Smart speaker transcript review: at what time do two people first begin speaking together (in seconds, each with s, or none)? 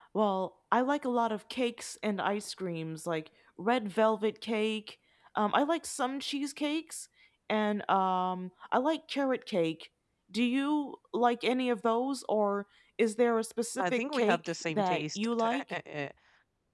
13.8 s